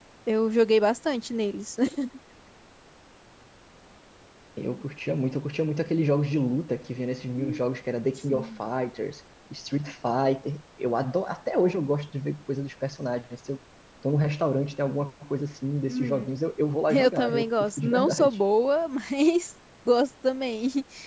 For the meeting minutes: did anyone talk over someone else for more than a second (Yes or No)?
Yes